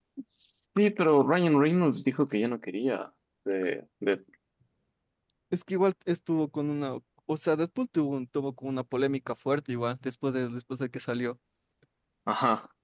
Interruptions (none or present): none